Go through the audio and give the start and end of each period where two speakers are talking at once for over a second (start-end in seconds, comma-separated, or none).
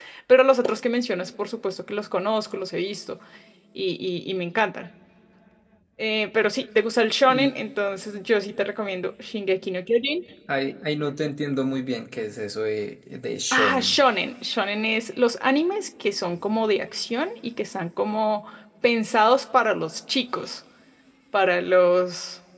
none